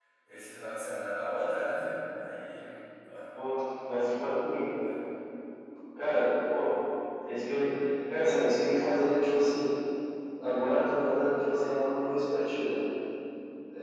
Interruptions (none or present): none